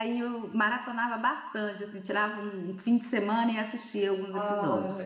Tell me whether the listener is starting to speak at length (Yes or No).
Yes